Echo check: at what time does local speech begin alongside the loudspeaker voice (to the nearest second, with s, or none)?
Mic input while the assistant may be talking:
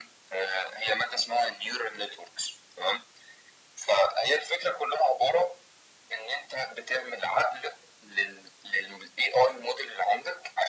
none